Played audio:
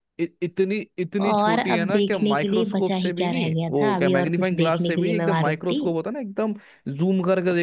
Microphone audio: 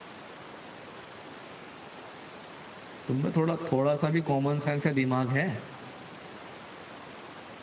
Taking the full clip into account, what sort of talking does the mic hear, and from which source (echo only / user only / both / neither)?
user only